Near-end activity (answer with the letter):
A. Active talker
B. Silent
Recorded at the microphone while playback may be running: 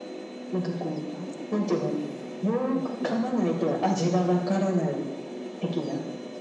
A